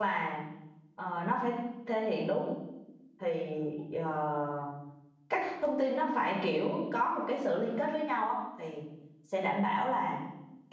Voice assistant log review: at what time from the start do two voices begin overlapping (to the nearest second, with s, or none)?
none